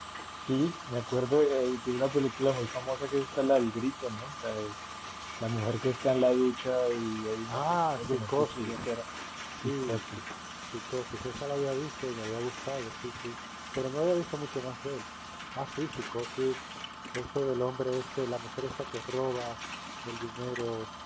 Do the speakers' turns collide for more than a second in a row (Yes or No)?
Yes